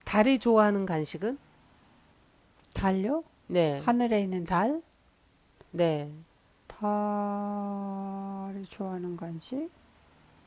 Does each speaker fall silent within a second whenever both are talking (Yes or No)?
Yes